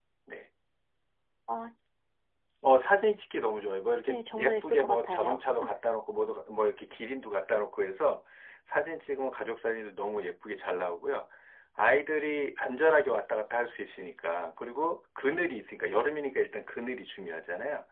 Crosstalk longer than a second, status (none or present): present